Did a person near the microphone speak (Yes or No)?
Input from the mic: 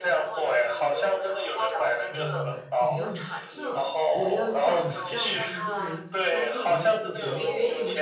Yes